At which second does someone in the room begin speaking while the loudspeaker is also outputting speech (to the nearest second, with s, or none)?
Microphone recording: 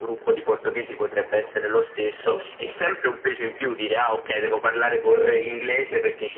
2 s